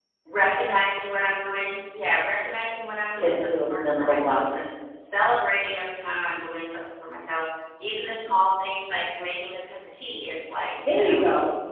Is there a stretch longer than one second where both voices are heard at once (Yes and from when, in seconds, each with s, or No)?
Yes, from 3.2 s